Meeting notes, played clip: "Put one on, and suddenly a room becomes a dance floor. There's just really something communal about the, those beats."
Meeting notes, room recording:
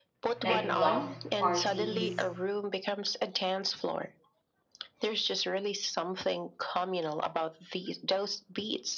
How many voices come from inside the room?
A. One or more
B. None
A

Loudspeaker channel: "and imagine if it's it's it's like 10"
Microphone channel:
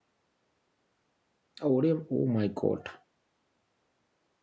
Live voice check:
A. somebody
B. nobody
A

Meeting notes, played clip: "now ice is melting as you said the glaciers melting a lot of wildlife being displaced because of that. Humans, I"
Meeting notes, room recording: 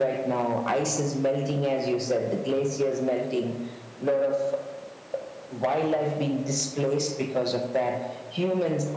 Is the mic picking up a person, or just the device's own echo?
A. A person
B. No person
B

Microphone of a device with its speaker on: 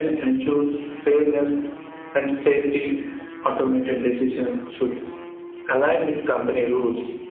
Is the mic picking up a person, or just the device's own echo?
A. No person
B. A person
A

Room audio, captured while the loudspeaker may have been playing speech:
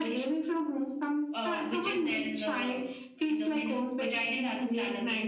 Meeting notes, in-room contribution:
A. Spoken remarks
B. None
B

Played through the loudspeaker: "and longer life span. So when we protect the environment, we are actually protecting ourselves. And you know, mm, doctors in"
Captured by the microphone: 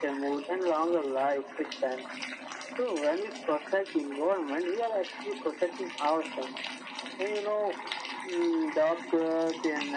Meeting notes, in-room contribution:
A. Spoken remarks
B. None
B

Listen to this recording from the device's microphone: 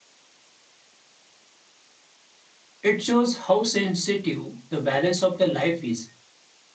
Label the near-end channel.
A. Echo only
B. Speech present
B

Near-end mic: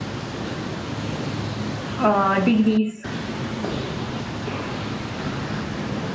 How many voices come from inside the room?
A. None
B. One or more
B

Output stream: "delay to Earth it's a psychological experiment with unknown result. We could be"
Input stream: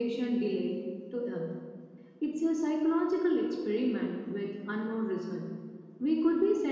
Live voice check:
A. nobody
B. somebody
A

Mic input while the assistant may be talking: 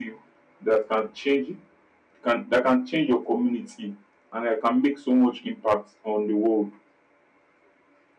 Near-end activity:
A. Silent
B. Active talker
A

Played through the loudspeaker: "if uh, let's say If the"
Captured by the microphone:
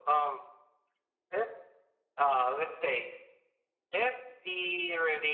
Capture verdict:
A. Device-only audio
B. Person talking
A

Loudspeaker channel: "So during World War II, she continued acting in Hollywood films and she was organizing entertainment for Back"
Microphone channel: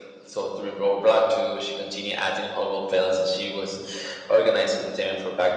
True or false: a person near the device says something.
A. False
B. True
A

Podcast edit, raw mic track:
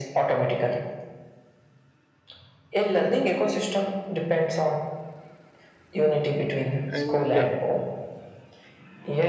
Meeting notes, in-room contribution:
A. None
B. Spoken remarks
B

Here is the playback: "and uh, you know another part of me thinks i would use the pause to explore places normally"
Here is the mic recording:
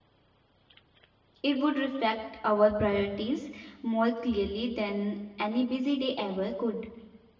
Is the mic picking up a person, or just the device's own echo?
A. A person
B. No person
A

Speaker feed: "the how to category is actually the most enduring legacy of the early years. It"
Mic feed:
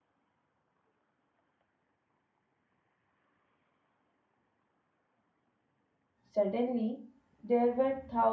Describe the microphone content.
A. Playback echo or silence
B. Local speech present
B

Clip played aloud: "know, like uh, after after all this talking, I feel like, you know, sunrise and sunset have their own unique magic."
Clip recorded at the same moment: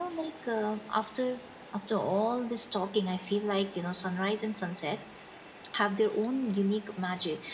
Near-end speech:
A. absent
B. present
A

